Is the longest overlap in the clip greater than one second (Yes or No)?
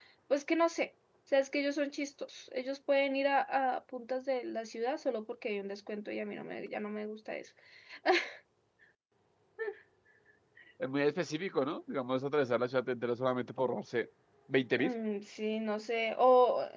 No